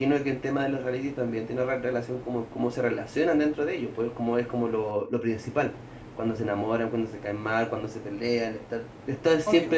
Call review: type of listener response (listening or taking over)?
listening